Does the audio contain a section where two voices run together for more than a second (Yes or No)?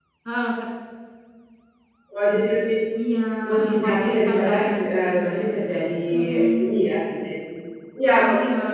Yes